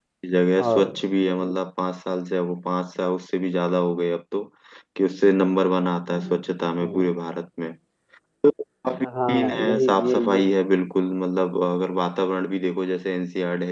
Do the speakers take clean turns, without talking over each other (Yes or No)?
No